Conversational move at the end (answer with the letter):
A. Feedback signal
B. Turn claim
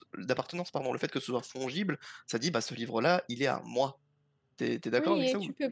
B